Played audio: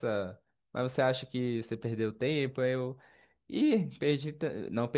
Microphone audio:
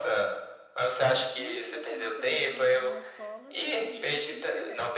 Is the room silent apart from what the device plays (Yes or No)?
No